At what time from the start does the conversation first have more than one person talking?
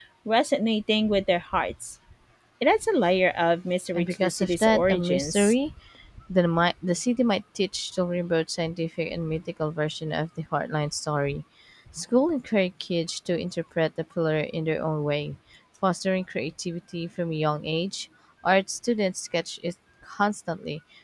4 s

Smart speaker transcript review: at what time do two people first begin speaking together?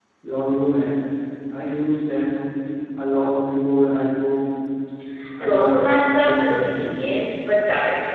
5 s

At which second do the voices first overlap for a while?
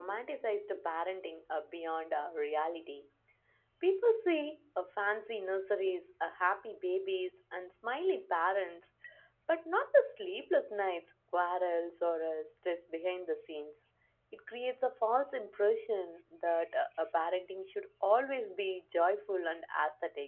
none

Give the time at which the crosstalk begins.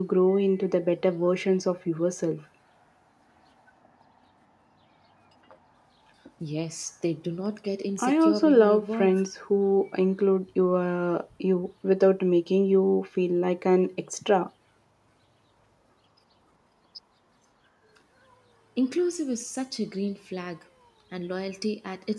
8 s

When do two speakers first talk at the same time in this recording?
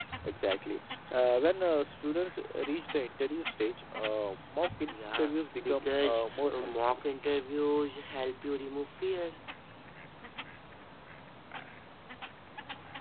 5 s

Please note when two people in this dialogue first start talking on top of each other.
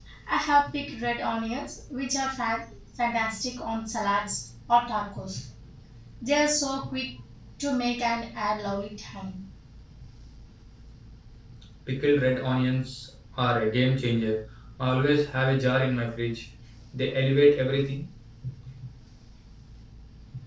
none

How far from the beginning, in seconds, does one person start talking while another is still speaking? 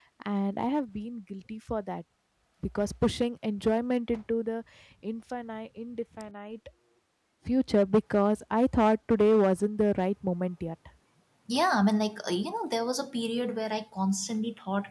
none

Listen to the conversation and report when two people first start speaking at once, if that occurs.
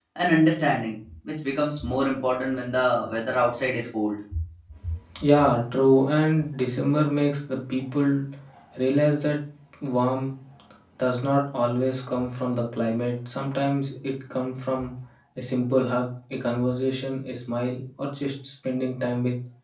none

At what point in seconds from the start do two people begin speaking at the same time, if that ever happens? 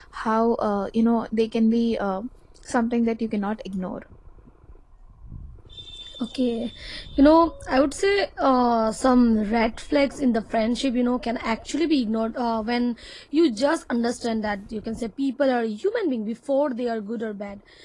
none

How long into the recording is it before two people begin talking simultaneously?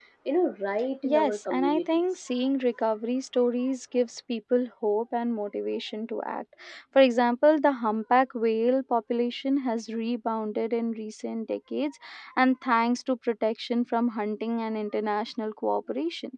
1 s

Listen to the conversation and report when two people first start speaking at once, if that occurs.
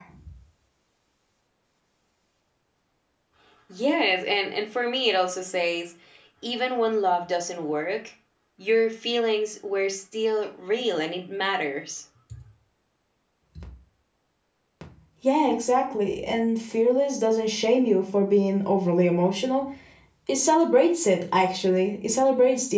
none

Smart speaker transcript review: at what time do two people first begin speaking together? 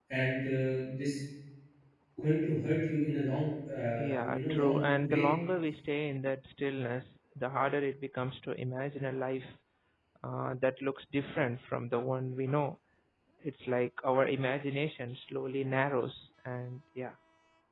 4 s

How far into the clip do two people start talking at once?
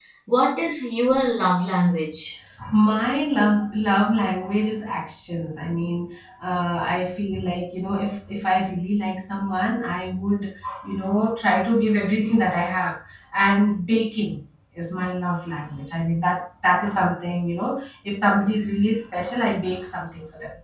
none

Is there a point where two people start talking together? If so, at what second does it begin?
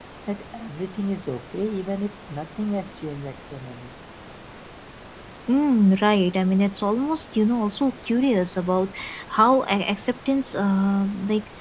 none

